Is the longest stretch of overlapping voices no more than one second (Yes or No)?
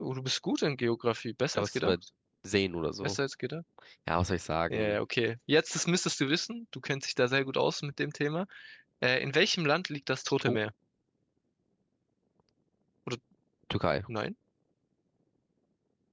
Yes